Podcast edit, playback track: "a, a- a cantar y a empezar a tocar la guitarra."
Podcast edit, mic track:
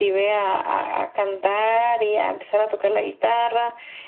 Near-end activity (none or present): none